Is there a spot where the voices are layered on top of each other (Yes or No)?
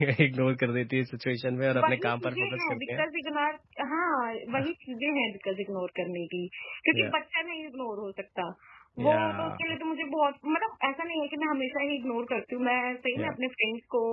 Yes